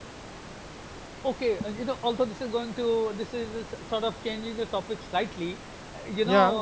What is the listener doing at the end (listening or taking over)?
listening